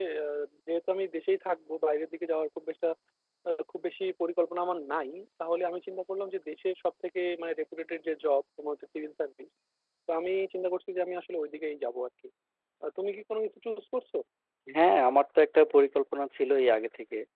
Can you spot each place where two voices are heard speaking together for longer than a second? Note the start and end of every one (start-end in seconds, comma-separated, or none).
none